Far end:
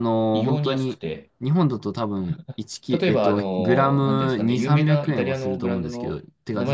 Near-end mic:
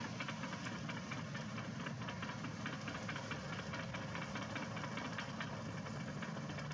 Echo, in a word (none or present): none